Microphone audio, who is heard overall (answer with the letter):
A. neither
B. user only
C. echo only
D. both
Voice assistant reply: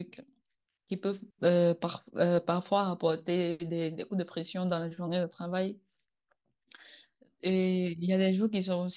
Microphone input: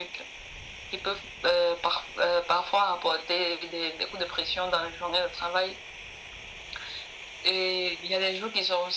C